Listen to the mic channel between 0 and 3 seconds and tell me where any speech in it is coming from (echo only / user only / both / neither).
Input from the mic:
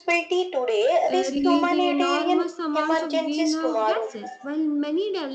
both